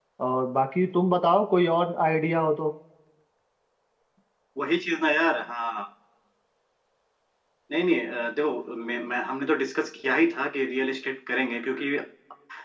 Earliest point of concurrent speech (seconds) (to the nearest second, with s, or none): none